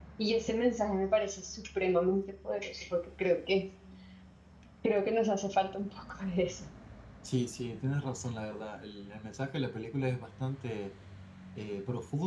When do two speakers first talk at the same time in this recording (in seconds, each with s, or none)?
none